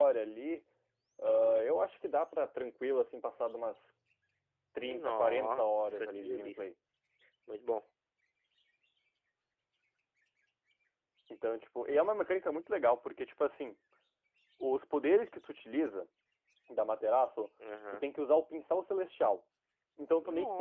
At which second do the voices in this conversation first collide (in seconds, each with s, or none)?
4.8 s